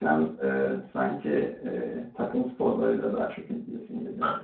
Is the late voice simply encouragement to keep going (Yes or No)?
No